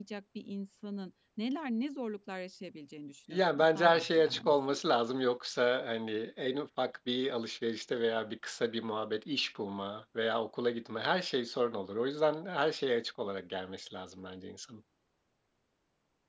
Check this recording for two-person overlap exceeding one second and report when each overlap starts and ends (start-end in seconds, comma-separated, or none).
3.3-4.8